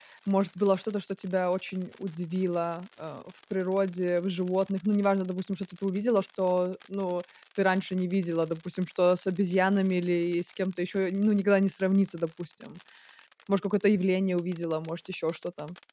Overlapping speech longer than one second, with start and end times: none

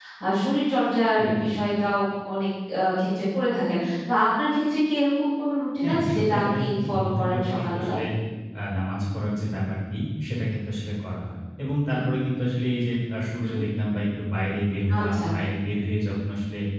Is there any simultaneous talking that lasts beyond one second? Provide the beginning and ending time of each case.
5.8-7.9

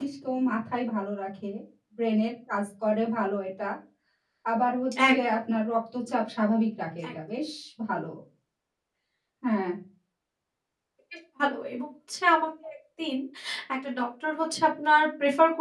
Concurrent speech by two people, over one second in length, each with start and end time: none

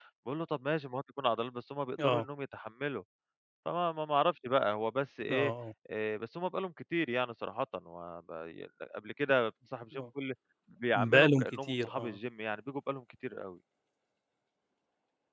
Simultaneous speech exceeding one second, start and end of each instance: 11.0-12.2

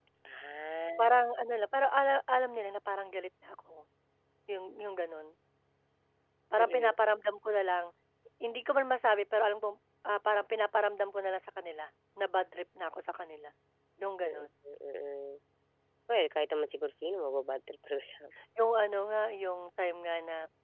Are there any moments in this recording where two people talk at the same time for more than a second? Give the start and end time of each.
none

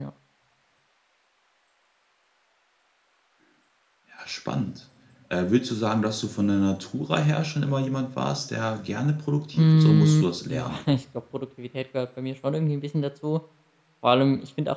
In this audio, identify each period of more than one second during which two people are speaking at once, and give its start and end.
9.5-10.8

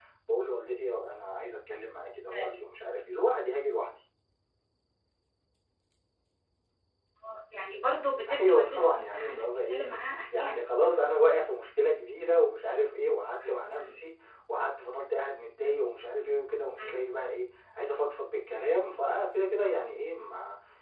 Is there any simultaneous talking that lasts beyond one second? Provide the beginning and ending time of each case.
8.3-9.8

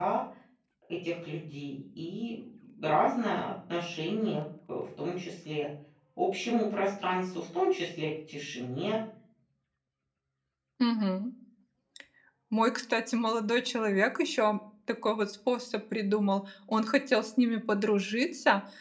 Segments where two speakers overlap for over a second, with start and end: none

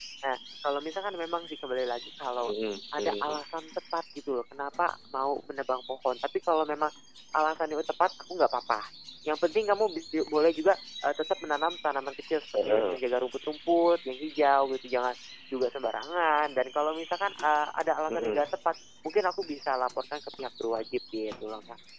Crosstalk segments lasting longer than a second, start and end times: none

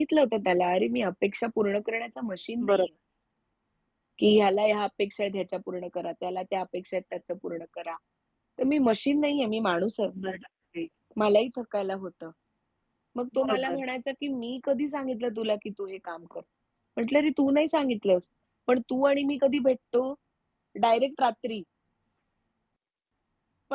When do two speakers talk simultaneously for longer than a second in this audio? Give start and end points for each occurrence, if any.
none

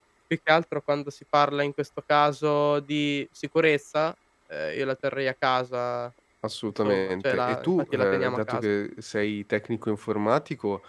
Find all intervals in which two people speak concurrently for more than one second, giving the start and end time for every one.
6.8-8.6

